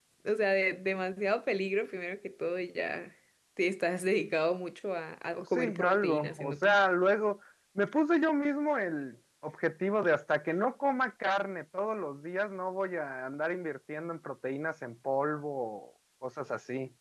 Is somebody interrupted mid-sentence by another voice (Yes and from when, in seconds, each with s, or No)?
Yes, from 5.6 s